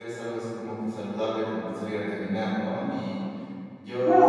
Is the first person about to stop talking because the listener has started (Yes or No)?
Yes